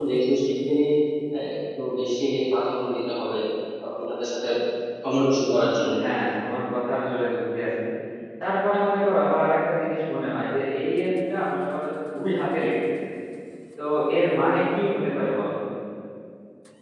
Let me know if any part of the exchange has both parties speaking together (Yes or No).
No